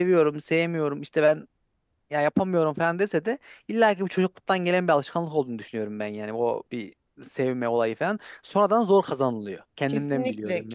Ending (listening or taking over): taking over